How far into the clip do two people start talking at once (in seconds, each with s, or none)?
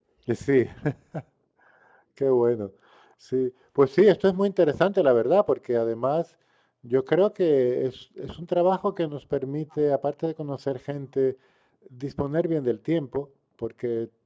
none